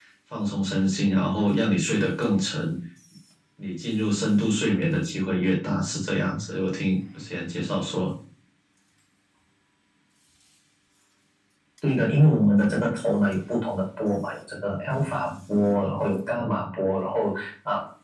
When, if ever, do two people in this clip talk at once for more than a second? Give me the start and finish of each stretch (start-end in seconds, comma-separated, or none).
none